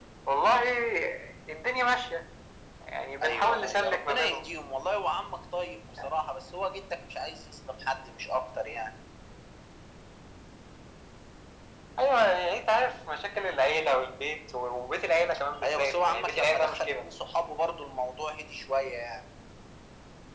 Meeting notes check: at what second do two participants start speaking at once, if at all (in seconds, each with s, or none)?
3.2 s